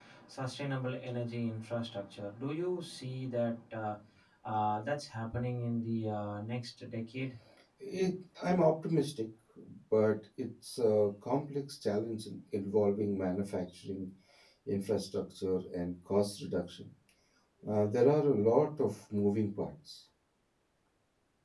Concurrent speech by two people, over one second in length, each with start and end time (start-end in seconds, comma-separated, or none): none